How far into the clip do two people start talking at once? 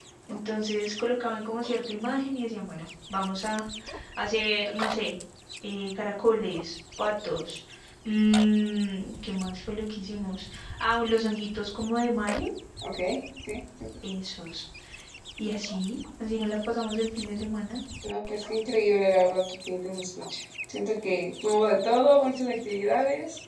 none

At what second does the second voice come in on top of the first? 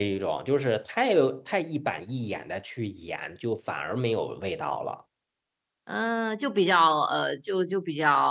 none

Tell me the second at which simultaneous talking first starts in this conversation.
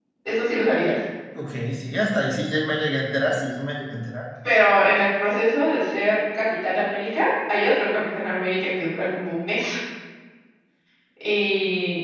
none

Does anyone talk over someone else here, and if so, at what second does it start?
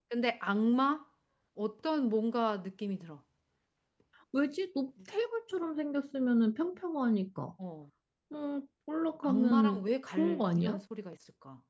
9 s

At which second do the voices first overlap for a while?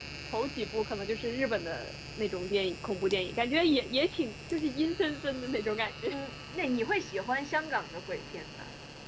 none

